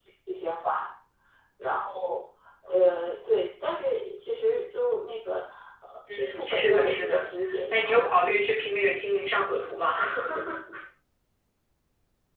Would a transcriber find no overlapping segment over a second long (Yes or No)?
No